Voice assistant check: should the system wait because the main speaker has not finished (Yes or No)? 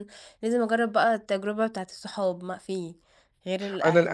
No